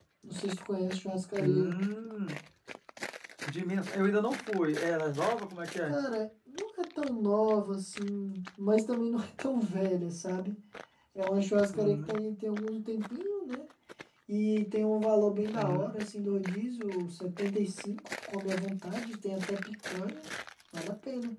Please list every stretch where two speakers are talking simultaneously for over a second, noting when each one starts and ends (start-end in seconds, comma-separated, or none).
none